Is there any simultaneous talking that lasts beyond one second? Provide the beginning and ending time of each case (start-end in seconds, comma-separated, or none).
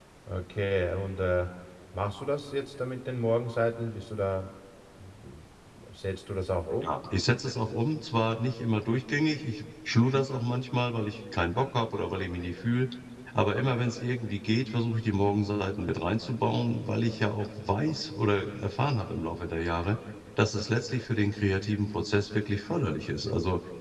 none